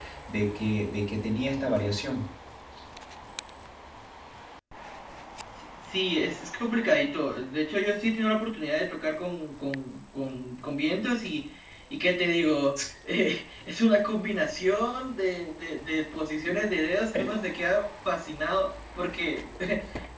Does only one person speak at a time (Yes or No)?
Yes